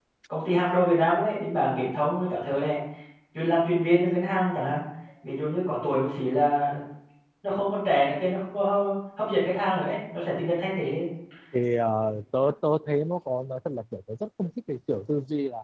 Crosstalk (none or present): none